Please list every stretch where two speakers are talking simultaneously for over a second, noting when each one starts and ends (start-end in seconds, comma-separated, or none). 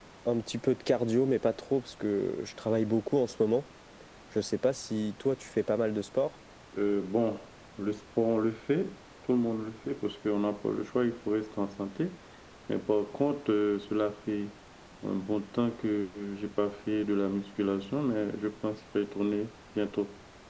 none